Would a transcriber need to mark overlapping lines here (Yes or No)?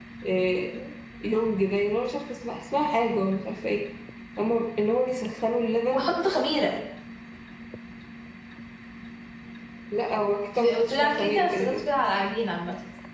Yes